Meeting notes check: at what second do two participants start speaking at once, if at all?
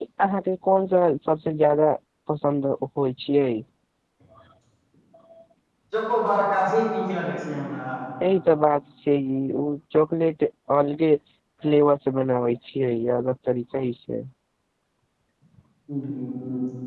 none

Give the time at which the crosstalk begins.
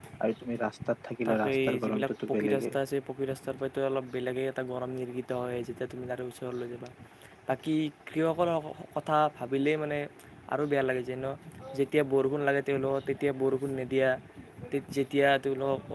1.3 s

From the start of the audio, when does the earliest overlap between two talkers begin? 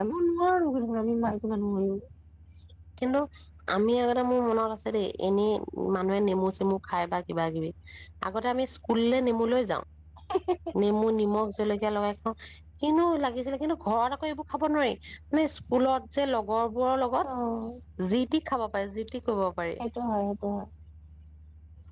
none

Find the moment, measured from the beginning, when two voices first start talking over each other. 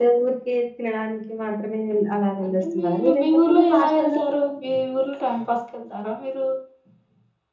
2.4 s

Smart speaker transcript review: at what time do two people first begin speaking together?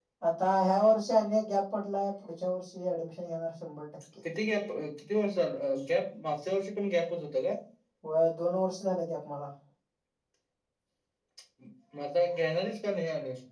none

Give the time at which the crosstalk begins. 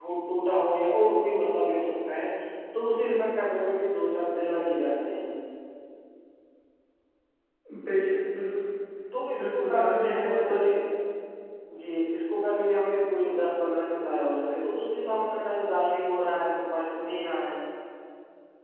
9.4 s

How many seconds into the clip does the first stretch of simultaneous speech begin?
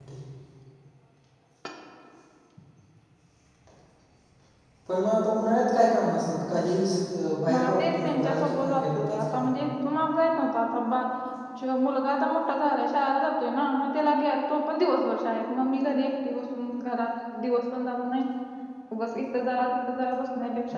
7.5 s

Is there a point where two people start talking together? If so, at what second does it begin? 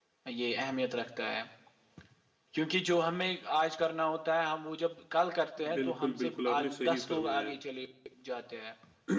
5.6 s

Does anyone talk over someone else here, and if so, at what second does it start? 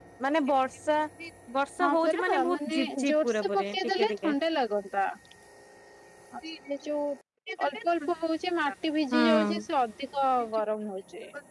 1.8 s

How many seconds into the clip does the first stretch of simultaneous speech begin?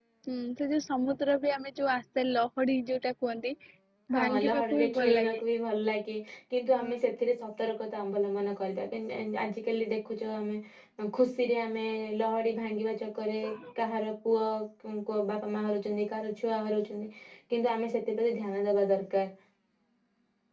4.2 s

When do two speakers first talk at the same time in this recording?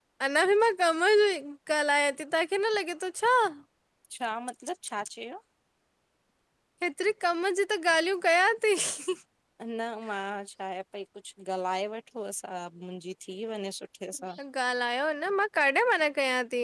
none

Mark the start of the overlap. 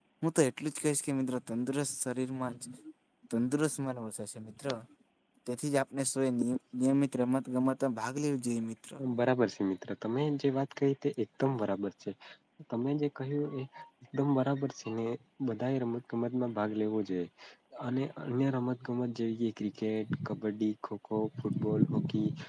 none

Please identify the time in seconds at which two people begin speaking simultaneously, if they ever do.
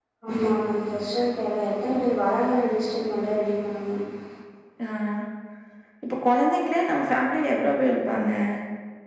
none

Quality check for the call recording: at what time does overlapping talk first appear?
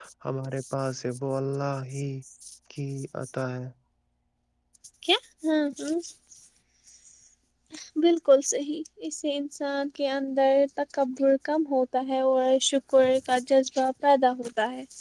none

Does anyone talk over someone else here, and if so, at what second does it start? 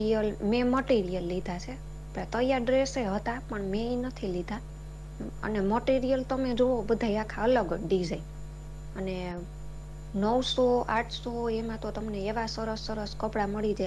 none

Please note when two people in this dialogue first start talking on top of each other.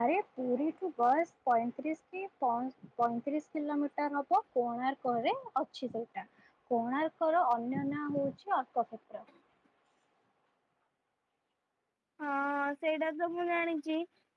none

